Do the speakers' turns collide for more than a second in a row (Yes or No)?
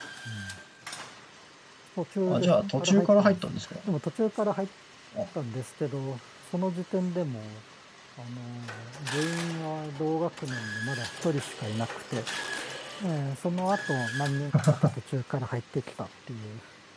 Yes